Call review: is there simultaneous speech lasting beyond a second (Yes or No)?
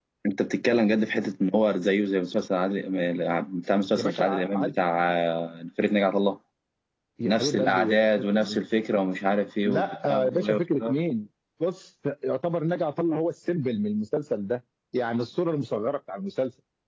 Yes